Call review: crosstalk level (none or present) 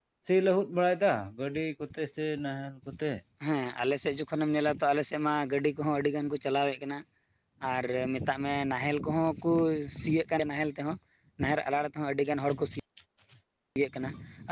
none